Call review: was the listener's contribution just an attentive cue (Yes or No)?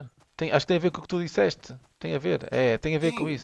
No